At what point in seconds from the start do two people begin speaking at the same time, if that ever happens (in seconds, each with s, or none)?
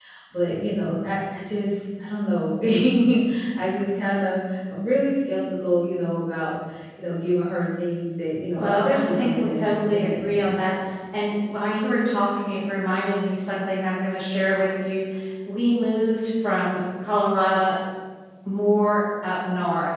8.6 s